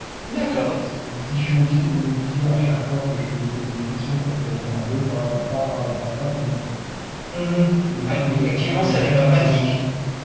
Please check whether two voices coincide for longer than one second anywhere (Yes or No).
Yes